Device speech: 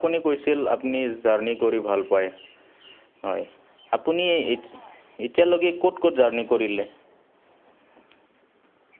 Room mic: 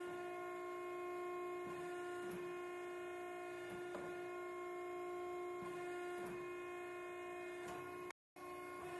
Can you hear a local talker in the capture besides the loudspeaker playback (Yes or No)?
No